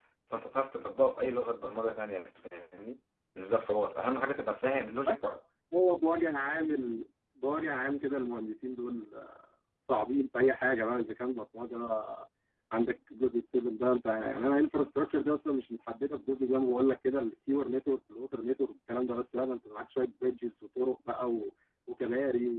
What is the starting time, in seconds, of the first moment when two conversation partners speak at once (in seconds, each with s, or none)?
none